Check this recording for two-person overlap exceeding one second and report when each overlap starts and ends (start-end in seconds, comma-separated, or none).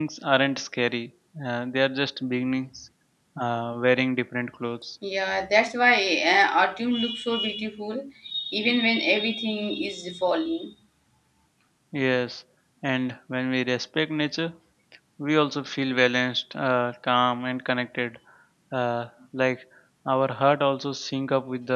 none